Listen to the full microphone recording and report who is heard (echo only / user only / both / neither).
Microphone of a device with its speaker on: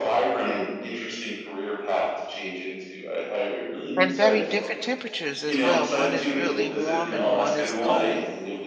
both